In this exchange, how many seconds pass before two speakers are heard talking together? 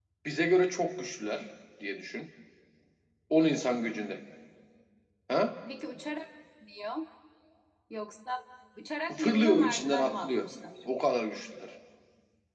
9.1 s

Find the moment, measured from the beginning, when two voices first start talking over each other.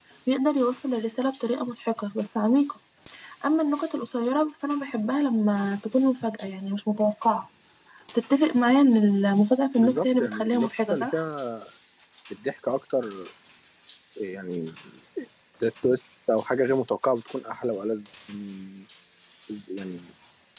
9.8 s

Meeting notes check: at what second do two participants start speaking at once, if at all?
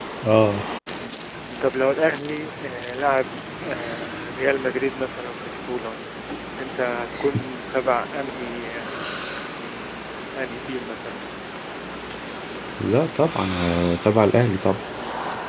none

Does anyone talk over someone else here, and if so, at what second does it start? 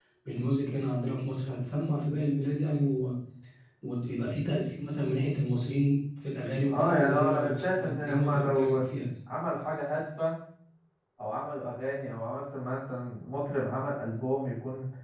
6.7 s

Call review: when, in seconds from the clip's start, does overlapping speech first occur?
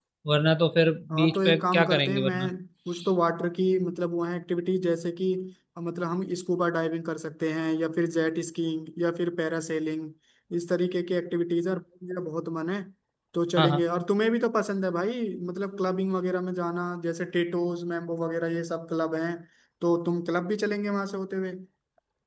1.1 s

